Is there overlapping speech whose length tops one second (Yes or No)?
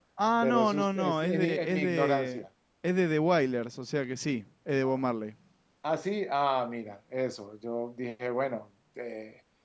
Yes